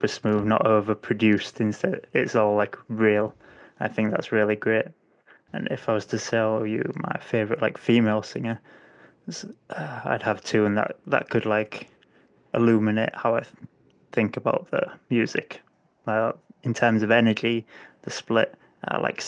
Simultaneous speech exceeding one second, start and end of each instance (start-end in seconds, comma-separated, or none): none